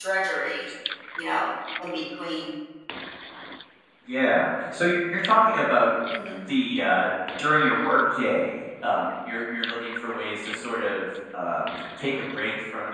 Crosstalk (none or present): none